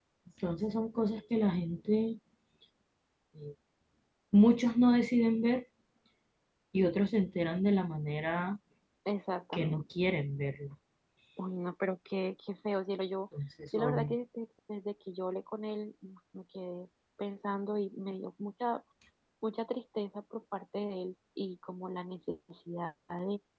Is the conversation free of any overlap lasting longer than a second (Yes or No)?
Yes